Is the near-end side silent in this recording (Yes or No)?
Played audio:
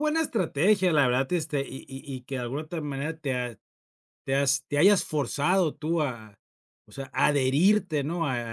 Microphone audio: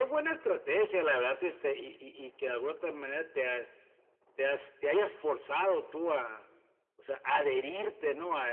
Yes